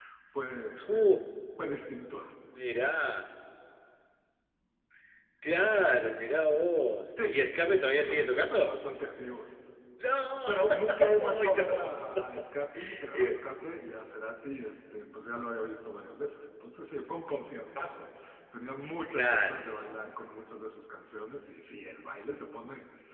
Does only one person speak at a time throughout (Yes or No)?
No